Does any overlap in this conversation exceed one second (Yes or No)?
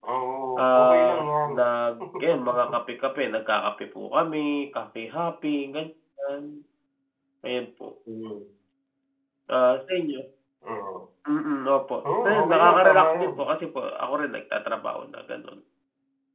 Yes